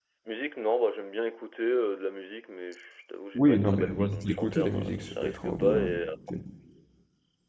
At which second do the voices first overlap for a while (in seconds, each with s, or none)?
3.3 s